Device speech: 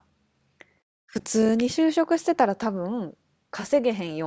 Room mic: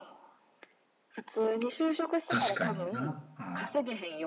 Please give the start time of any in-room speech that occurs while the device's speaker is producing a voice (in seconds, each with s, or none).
2.3 s